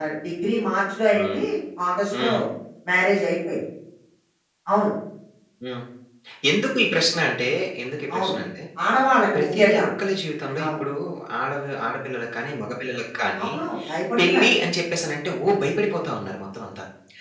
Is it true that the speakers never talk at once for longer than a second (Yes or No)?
Yes